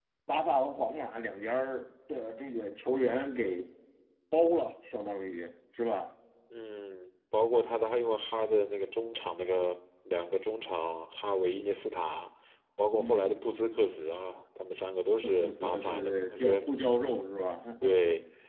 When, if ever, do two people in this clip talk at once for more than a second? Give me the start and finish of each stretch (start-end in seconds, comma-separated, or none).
15.2-16.7